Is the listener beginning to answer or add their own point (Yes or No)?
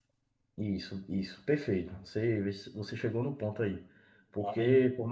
No